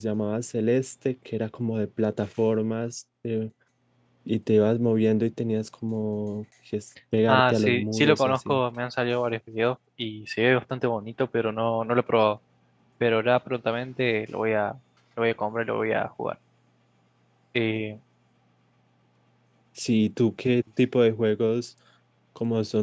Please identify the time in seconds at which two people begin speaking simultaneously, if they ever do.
7.3 s

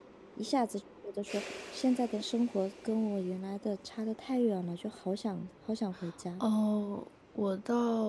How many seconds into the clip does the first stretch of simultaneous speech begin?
none

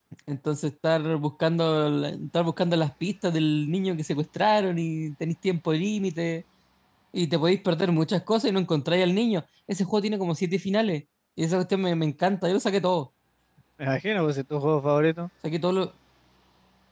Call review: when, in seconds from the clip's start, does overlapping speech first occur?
none

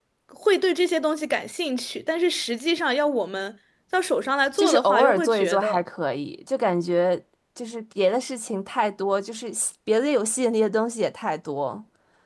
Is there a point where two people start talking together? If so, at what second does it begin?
4.6 s

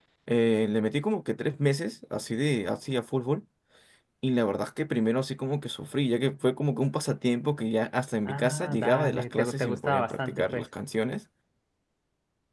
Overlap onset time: 8.2 s

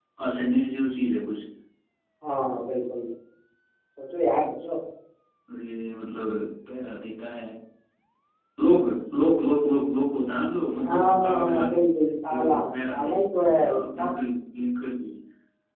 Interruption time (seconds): 10.8 s

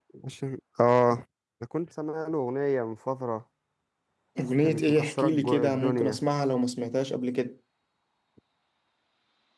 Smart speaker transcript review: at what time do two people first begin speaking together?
4.6 s

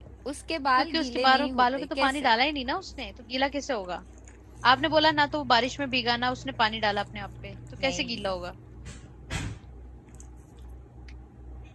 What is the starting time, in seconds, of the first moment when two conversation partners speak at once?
0.8 s

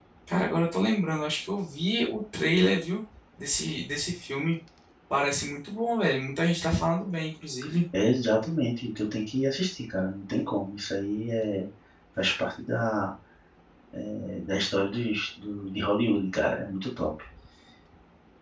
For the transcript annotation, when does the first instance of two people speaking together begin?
none

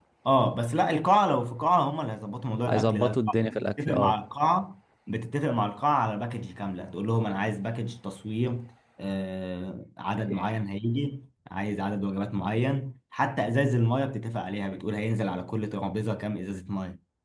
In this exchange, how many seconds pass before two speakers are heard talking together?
2.7 s

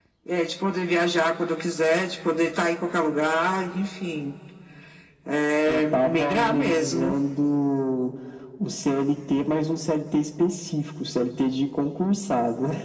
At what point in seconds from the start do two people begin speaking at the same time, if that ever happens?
5.7 s

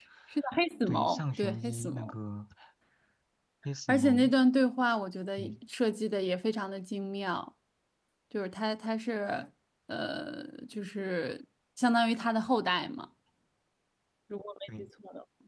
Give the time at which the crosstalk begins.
0.9 s

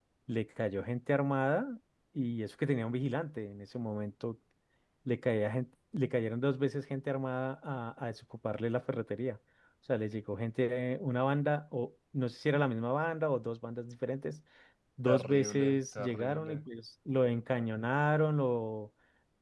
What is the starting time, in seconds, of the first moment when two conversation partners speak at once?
15.1 s

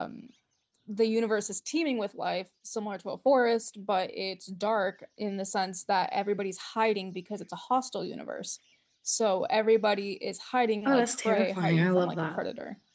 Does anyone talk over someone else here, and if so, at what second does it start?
10.8 s

